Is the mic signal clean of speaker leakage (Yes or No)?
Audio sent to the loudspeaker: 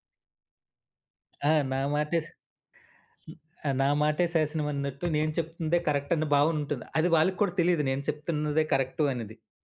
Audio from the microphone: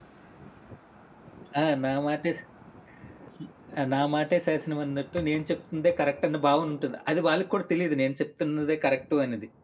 No